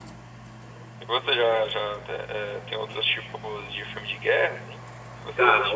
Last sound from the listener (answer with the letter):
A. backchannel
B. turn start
B